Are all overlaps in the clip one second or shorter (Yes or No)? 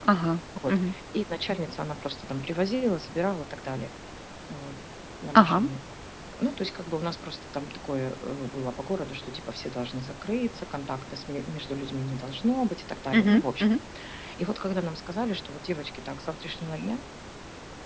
Yes